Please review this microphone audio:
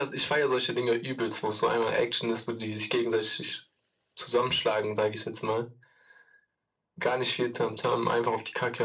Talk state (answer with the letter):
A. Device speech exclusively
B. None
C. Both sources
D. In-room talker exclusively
A